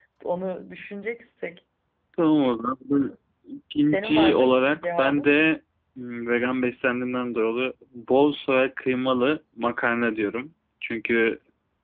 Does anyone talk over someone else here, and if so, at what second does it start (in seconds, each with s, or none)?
3.9 s